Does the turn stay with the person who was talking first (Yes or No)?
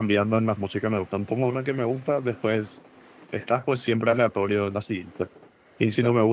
Yes